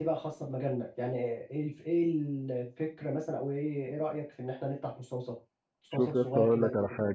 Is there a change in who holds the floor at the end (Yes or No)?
Yes